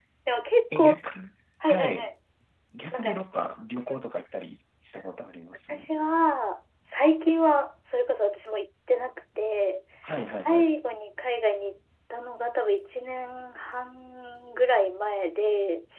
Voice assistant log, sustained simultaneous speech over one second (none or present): none